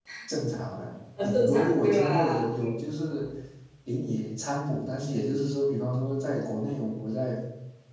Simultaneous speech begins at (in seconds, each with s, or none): 1.2 s